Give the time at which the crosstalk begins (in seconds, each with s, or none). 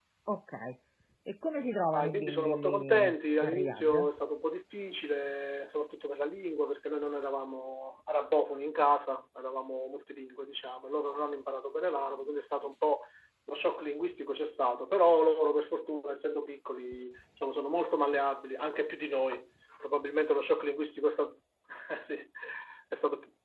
1.9 s